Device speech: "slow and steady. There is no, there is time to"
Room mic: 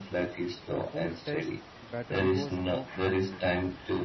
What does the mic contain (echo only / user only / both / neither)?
both